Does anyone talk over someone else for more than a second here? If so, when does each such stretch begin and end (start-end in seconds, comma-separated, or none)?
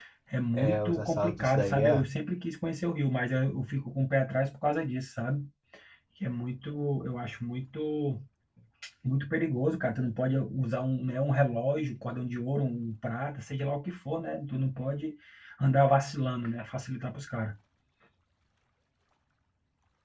0.6-2.0